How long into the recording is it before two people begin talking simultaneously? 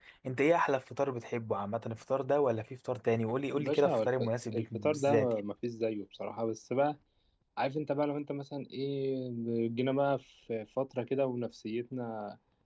3.6 s

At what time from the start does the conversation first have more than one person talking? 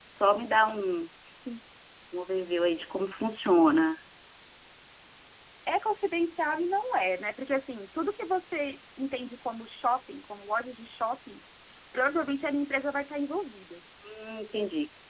none

